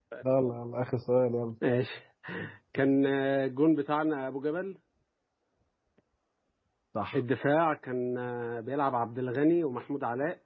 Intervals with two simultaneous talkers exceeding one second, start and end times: none

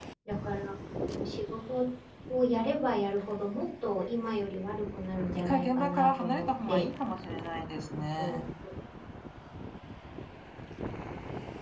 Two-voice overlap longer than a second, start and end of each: 5.3-6.8

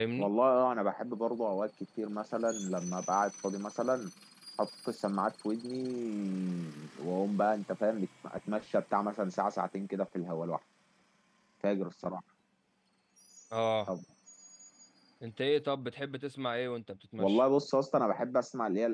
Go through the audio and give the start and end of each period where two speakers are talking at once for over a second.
none

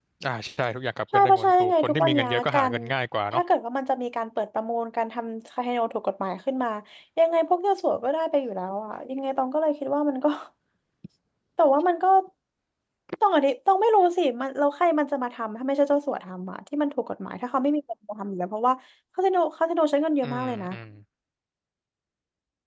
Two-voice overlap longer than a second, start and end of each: 1.1-2.7

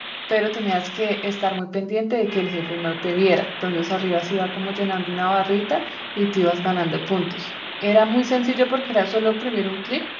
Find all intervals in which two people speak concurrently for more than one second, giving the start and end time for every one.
none

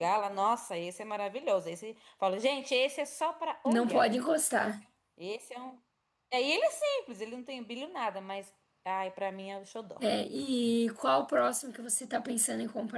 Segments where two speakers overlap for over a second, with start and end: none

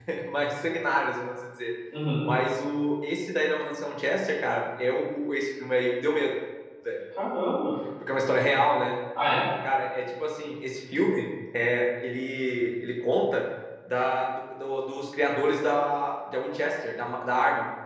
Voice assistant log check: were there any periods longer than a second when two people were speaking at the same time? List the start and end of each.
none

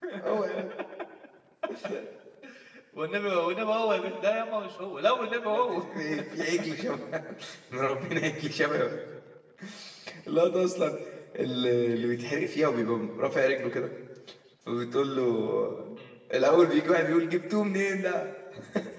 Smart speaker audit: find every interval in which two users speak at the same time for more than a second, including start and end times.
none

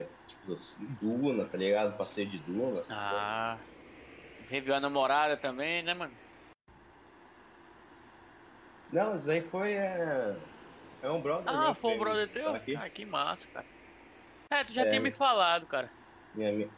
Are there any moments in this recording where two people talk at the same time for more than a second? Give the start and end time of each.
11.5-12.8

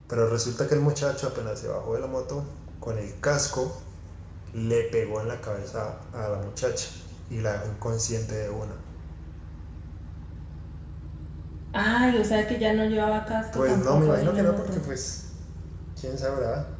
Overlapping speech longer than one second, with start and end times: 13.5-14.8

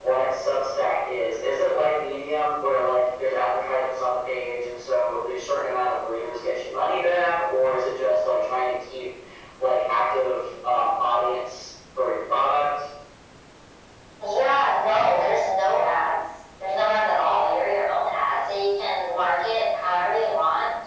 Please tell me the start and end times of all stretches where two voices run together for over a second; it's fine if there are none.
none

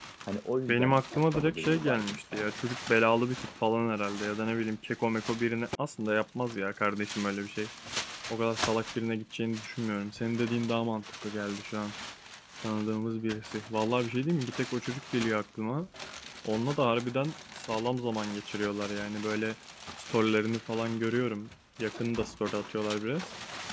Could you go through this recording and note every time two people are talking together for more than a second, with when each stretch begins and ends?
0.7-2.5

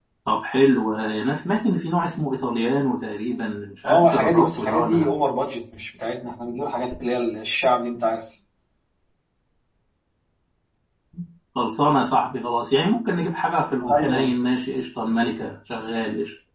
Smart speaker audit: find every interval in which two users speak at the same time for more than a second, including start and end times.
3.9-5.1

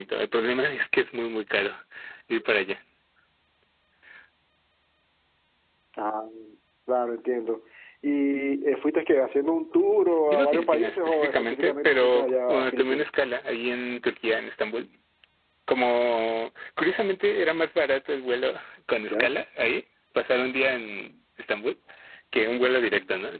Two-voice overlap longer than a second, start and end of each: 10.3-13.1

